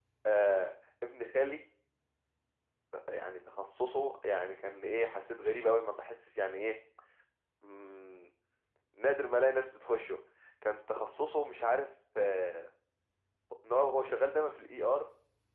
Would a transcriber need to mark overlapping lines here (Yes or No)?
No